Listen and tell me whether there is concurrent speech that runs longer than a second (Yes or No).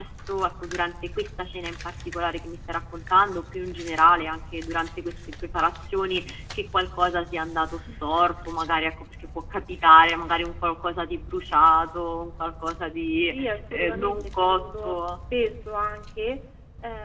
Yes